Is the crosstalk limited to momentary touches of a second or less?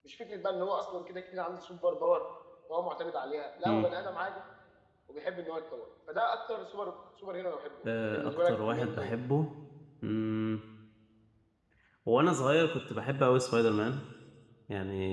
No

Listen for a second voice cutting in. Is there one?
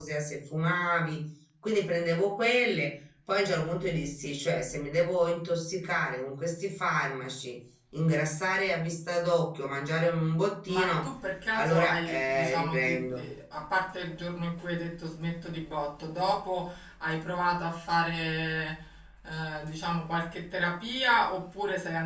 Yes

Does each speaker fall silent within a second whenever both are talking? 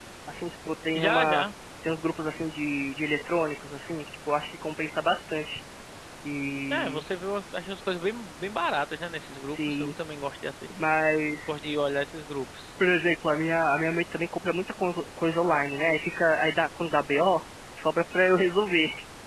Yes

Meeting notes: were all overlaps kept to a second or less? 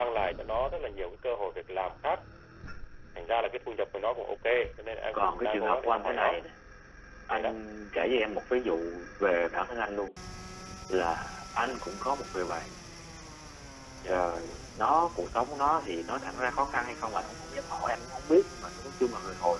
No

